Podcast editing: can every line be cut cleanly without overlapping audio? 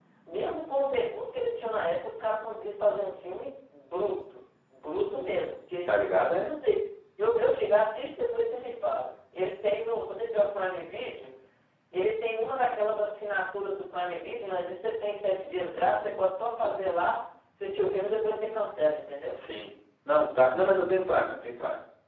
Yes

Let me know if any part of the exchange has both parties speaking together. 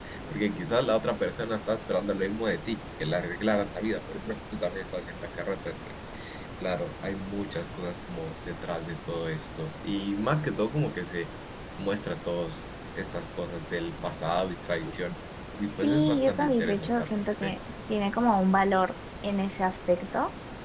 Yes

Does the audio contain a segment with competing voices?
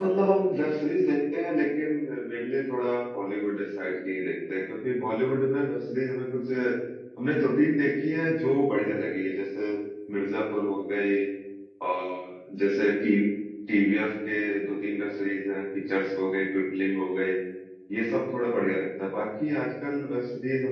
No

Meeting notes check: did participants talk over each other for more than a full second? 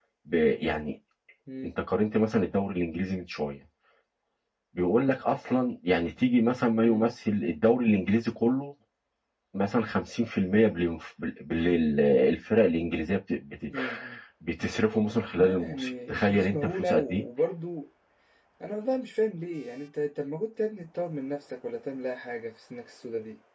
Yes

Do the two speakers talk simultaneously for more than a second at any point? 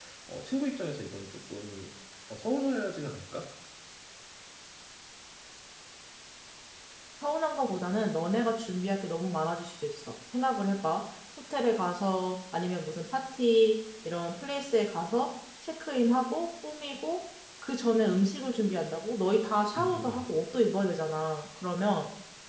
No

